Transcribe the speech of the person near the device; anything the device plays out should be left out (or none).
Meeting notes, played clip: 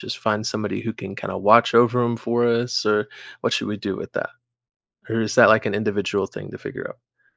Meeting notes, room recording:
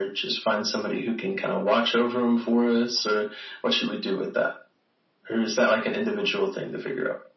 none